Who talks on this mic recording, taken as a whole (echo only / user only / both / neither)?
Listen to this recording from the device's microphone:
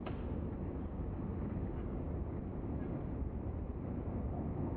neither